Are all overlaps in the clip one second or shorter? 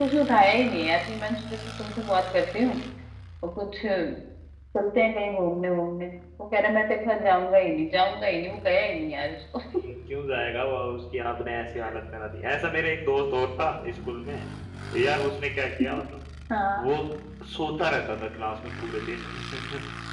Yes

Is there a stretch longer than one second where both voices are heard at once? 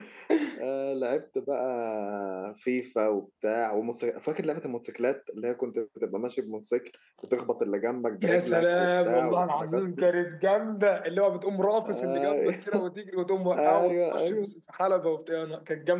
Yes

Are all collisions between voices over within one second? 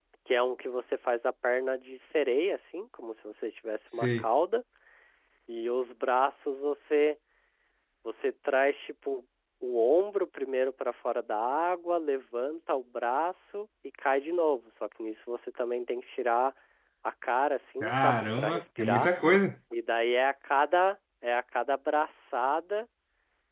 No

